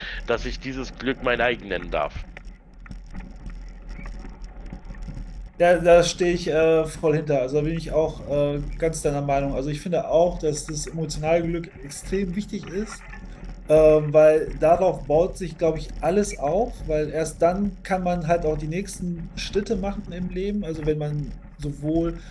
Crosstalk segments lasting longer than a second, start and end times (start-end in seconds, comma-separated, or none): none